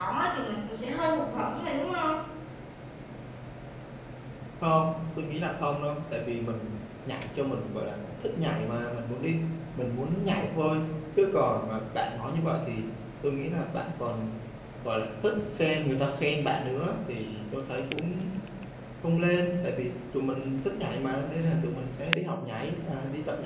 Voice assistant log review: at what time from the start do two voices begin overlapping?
none

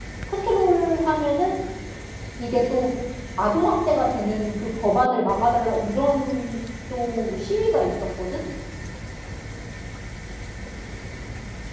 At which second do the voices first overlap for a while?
none

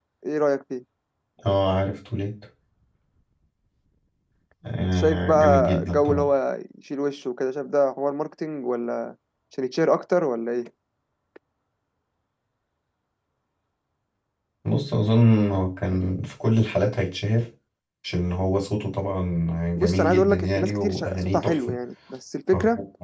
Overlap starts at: 4.9 s

